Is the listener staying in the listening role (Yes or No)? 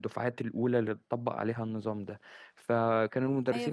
No